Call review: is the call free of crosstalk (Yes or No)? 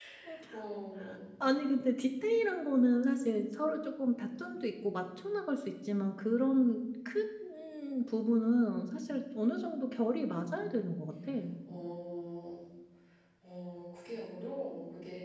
Yes